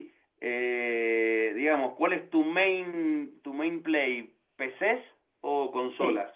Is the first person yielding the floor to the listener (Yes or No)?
Yes